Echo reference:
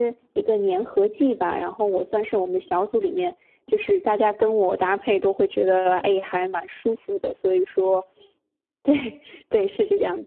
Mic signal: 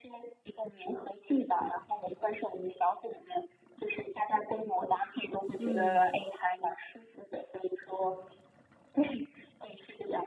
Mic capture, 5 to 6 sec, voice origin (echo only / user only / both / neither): both